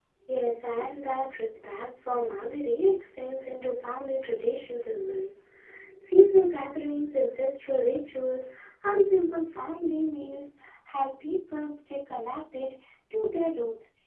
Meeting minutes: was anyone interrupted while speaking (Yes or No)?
No